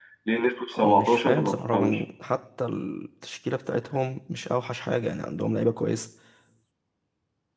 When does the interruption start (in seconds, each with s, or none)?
0.8 s